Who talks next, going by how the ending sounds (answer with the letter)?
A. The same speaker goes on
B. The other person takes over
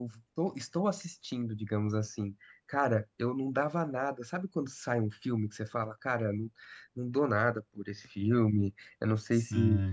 A